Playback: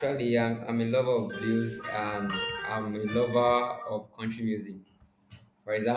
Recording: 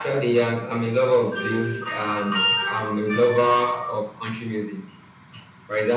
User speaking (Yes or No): No